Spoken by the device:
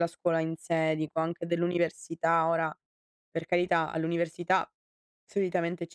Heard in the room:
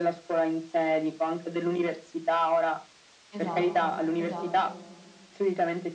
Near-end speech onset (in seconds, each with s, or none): 3.3 s